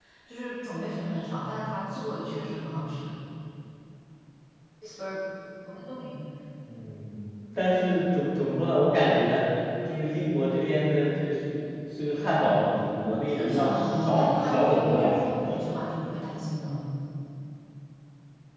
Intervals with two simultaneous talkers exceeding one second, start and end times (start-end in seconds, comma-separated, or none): 13.3-15.2